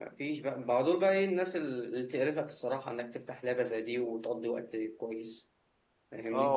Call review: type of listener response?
taking over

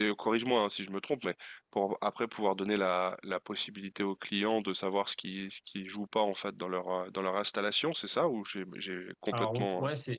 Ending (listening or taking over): taking over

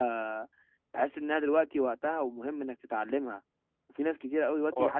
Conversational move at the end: listening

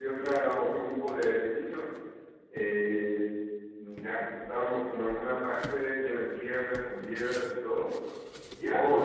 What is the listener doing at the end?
listening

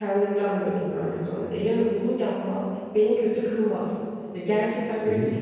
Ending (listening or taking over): listening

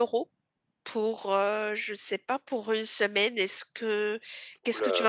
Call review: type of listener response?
taking over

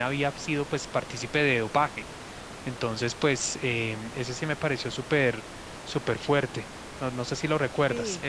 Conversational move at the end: taking over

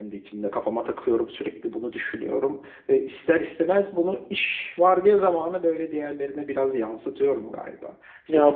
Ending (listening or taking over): taking over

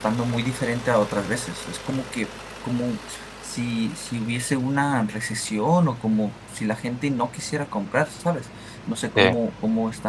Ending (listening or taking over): listening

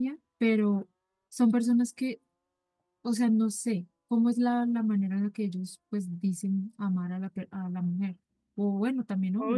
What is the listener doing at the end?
taking over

